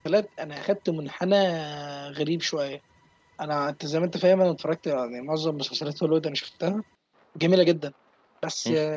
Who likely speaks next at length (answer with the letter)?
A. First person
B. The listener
A